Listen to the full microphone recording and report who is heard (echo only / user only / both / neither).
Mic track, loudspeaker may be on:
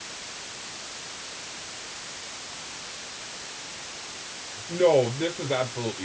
user only